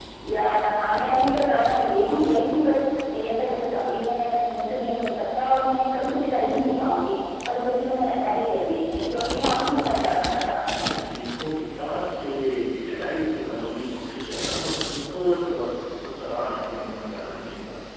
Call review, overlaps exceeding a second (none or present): present